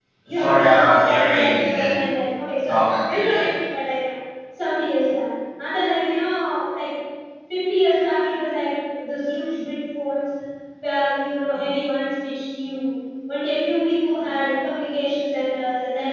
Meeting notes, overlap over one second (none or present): present